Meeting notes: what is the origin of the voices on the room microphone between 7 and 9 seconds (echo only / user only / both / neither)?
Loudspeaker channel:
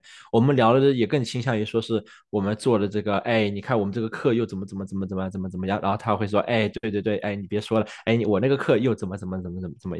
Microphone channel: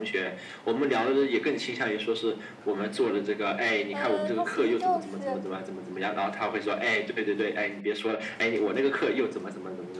echo only